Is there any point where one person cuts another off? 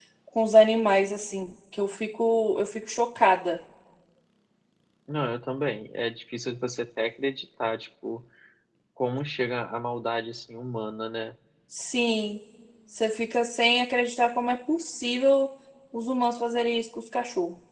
No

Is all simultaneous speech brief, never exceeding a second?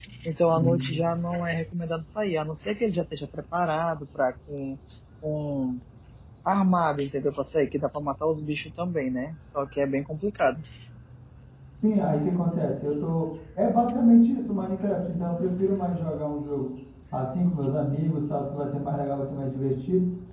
Yes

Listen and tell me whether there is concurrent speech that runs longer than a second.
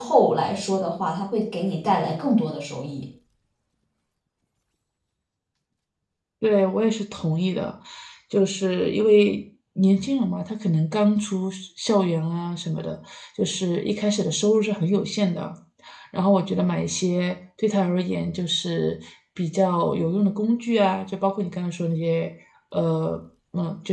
No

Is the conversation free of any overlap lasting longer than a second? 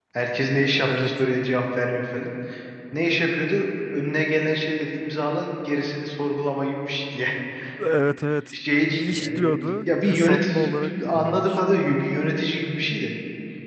No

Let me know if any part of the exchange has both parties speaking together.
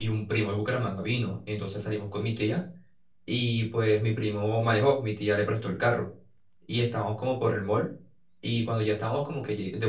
No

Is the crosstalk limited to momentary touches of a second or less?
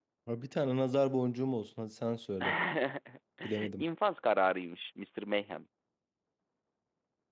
Yes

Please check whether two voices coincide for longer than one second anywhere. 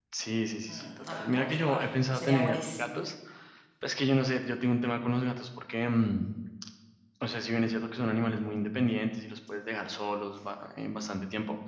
Yes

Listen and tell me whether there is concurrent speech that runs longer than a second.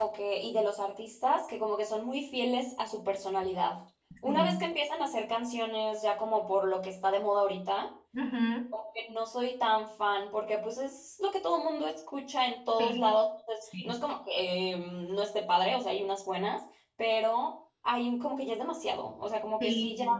No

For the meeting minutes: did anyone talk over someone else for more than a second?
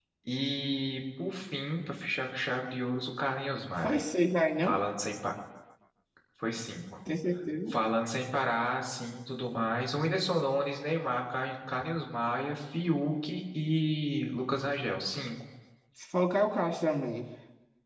No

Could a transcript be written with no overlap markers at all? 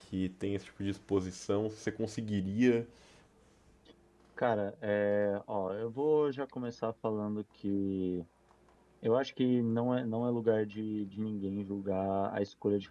Yes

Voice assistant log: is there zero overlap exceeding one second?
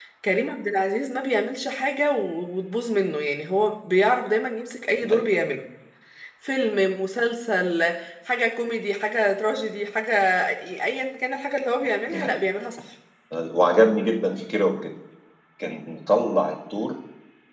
Yes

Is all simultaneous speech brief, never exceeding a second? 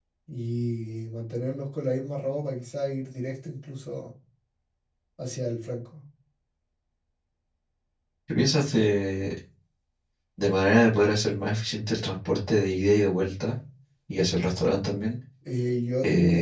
Yes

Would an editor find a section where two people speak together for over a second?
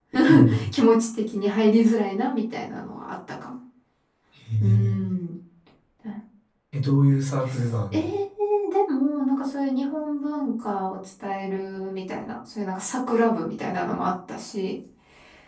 No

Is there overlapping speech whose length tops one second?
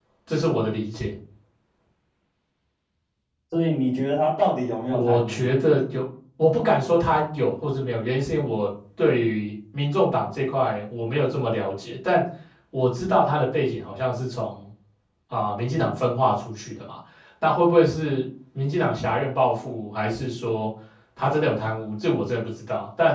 No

